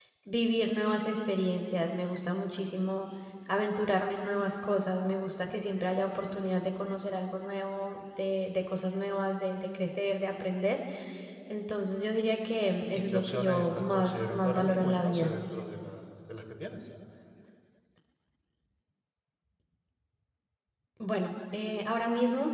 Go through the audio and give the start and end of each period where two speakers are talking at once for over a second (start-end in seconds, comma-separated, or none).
12.9-15.3